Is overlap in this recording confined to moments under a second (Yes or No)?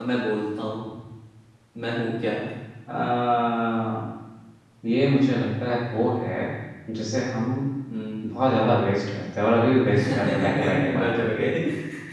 No